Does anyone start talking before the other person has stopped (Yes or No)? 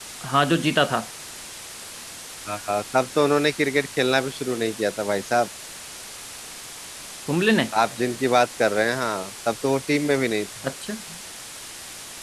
No